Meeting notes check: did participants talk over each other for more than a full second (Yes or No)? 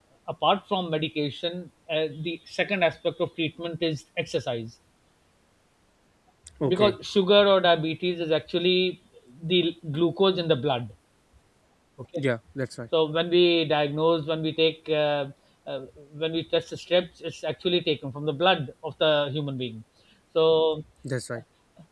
No